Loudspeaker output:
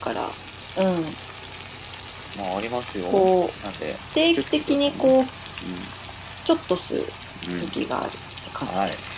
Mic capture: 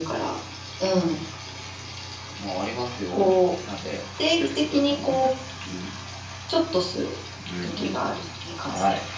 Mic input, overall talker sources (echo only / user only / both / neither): both